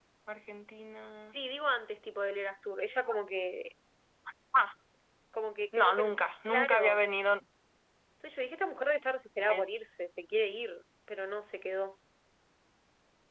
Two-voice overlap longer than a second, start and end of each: none

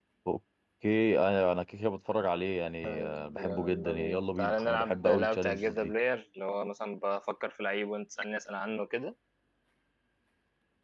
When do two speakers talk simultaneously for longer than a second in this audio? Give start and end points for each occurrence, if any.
2.9-5.9

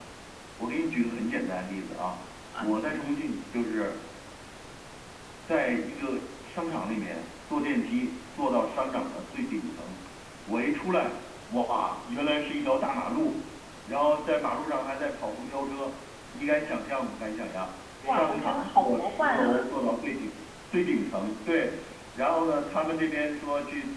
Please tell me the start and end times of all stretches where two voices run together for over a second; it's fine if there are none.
18.0-19.7

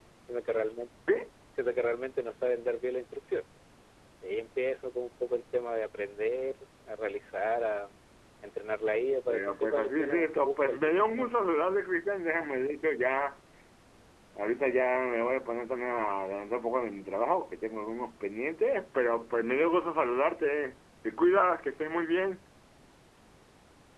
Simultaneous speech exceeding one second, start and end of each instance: 9.3-11.3

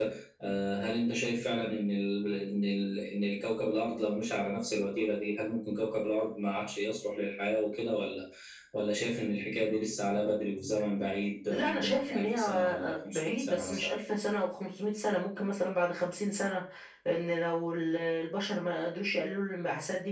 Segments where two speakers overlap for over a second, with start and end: 11.5-14.0

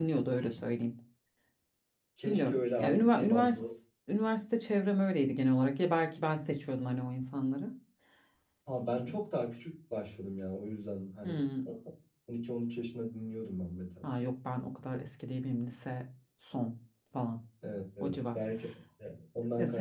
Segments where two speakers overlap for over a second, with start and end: 2.3-3.6

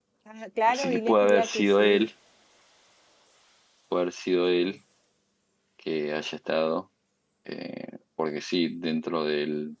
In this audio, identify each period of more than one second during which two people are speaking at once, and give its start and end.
0.7-2.1

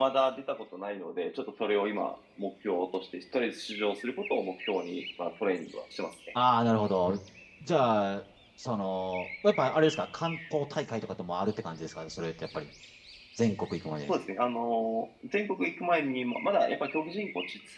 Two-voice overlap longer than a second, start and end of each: none

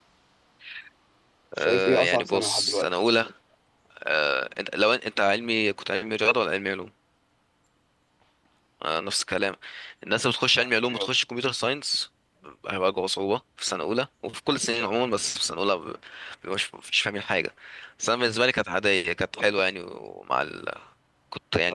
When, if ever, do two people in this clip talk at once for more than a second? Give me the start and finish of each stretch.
1.6-2.9

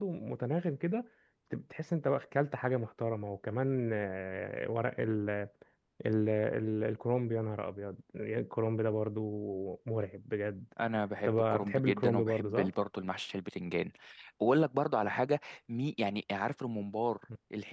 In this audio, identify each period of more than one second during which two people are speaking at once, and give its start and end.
11.2-12.7

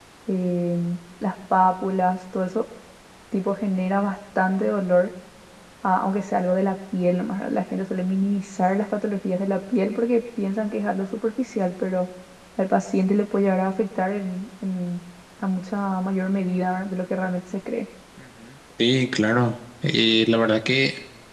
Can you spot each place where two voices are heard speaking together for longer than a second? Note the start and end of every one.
none

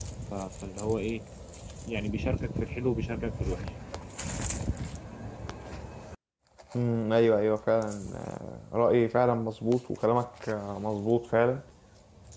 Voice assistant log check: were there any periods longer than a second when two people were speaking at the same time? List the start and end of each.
none

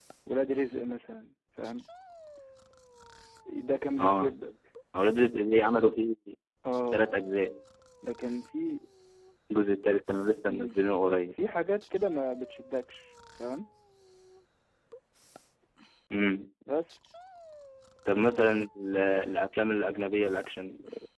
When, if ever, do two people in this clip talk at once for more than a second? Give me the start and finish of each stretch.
none

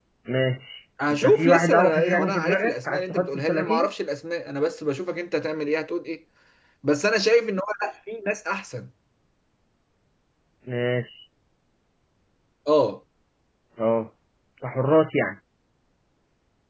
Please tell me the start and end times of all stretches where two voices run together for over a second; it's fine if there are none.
1.1-3.9

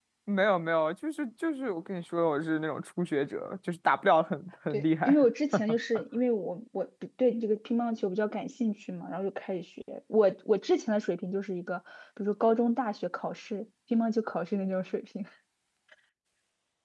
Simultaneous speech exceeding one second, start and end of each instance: none

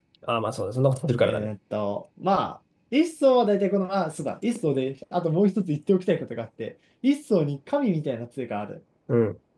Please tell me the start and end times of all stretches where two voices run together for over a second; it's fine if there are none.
none

